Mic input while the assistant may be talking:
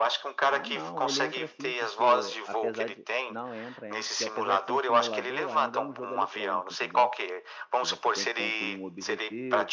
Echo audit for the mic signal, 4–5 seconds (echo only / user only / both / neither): both